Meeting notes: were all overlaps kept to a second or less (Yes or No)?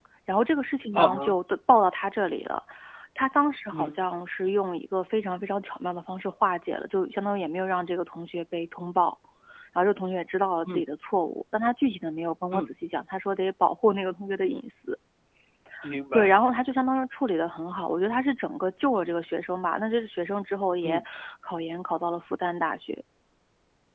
Yes